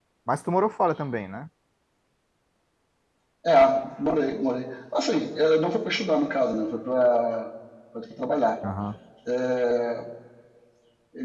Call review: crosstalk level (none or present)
none